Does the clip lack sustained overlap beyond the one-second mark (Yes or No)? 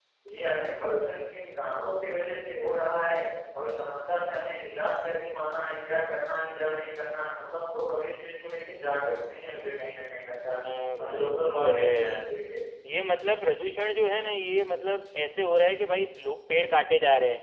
No